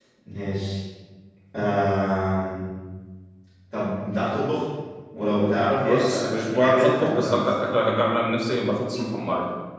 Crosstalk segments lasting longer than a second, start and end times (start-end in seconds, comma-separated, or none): 5.8-7.6